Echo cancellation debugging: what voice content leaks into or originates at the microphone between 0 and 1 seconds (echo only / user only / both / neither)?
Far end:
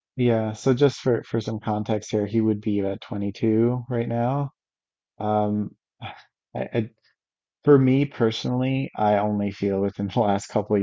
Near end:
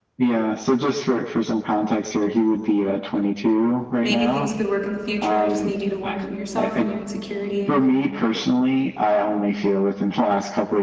echo only